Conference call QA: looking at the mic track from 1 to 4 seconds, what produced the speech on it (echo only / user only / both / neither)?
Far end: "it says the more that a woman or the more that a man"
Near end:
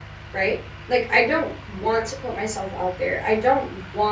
user only